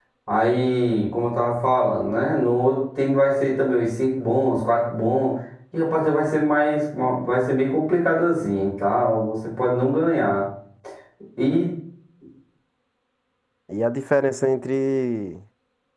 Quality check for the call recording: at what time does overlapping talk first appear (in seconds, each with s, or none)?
none